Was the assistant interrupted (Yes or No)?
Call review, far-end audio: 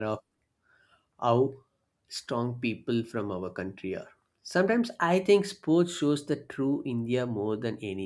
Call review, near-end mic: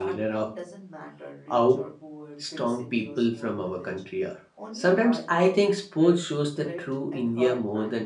Yes